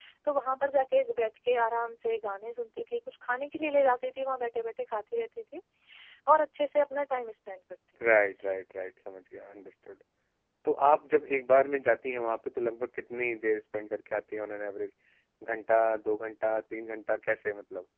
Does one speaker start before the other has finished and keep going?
No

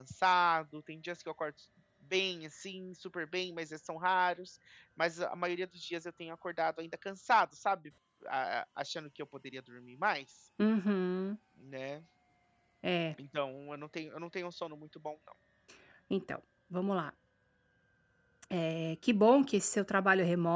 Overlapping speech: No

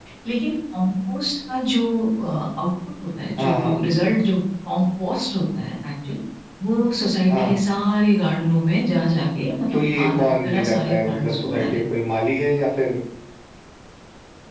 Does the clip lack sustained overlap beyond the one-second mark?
No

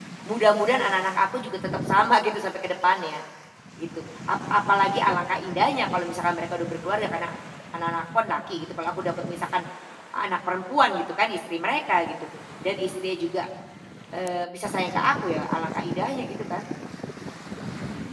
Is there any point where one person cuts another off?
No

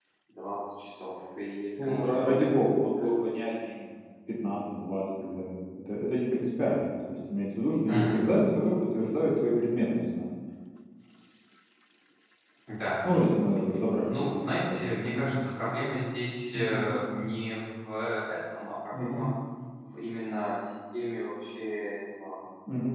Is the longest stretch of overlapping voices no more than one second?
No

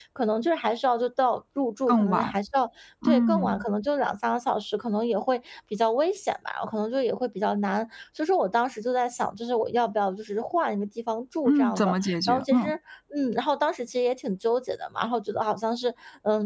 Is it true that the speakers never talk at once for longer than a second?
No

